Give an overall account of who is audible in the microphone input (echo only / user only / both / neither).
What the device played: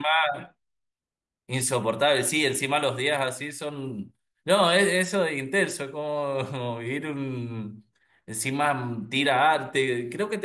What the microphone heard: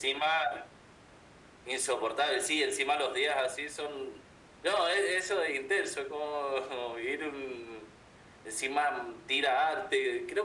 echo only